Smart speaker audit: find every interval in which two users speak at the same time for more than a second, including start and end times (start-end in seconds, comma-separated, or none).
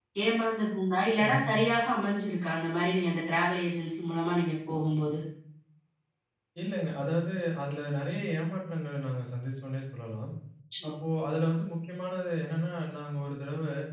none